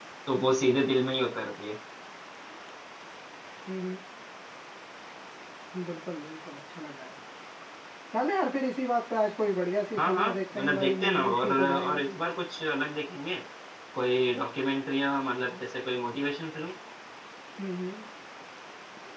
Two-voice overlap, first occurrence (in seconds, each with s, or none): 10.0 s